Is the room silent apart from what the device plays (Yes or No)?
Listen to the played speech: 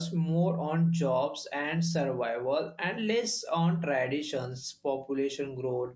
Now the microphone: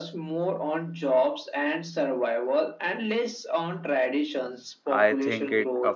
No